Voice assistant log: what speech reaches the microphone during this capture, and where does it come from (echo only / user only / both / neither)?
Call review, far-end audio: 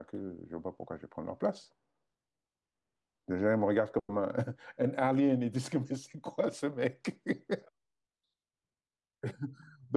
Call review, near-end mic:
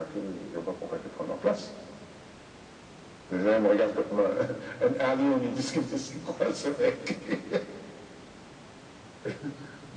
echo only